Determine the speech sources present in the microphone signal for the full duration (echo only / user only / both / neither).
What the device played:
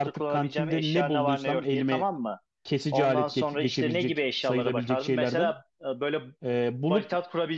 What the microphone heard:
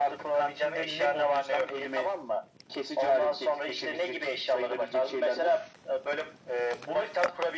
echo only